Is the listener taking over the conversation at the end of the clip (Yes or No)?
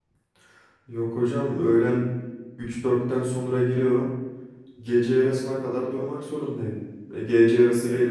No